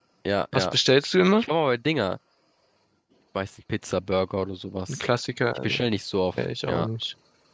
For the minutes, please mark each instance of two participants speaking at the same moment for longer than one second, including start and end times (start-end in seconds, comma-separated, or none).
none